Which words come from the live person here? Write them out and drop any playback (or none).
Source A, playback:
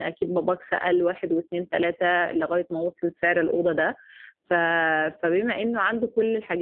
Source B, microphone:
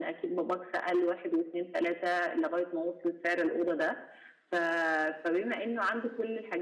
none